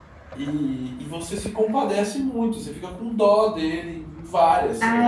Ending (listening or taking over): taking over